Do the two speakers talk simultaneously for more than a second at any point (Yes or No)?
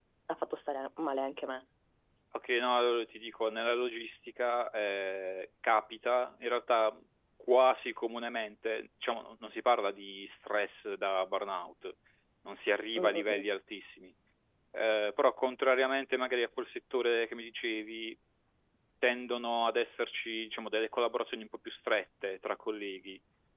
No